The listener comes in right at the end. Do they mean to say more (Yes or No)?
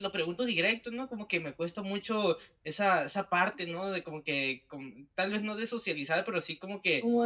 Yes